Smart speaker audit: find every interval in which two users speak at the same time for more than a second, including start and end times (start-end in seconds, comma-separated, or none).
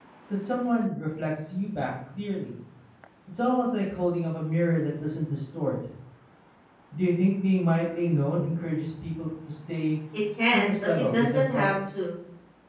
10.5-11.7